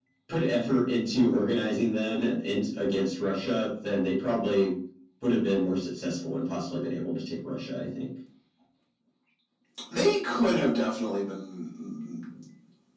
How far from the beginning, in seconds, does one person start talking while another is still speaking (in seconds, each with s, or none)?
none